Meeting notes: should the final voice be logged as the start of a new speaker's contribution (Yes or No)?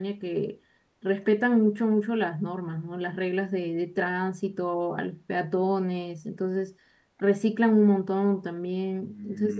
No